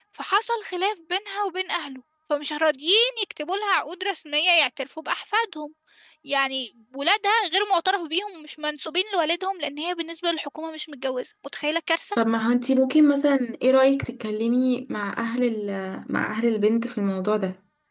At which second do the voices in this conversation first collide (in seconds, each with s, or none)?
none